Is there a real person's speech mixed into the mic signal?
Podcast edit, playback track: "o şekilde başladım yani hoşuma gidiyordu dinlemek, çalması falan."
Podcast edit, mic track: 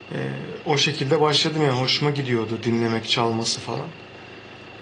No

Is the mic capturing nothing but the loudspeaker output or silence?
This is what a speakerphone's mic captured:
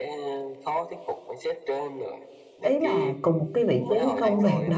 No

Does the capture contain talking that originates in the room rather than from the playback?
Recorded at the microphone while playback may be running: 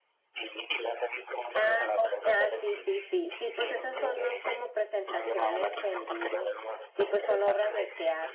Yes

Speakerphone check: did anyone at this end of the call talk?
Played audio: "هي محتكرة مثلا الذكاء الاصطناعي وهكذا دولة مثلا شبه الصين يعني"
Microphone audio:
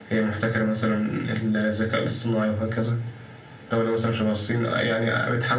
No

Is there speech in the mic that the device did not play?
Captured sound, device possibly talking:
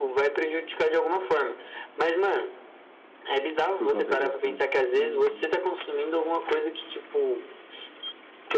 Yes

